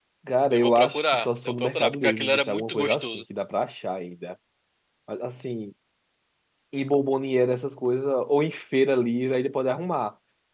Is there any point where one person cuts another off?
Yes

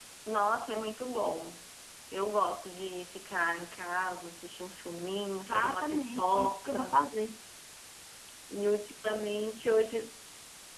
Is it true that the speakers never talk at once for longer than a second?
No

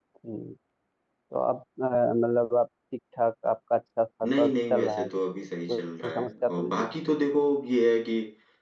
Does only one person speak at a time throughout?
No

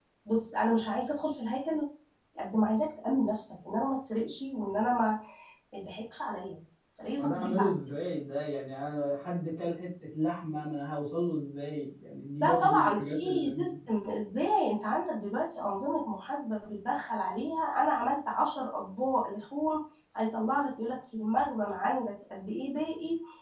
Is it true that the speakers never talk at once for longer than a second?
No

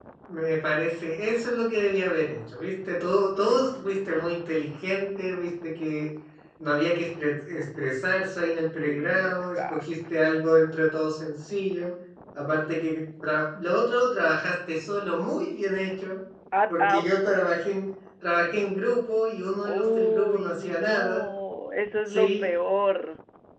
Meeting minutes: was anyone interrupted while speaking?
Yes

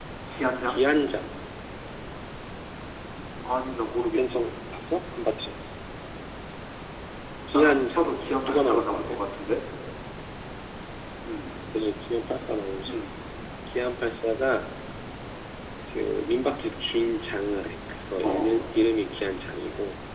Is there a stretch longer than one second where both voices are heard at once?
Yes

